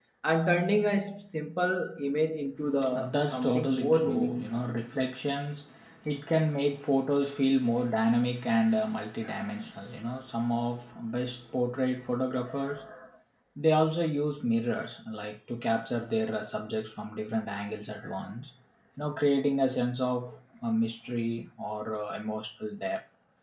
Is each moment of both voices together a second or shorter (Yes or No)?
No